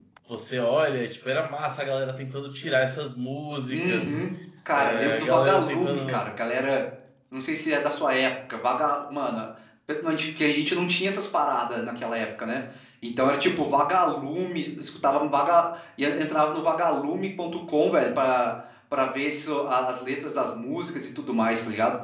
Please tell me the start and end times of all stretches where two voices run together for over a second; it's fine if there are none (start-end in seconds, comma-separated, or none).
4.7-6.3